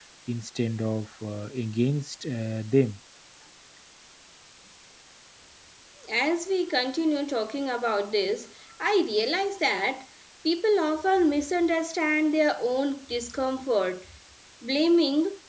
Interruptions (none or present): none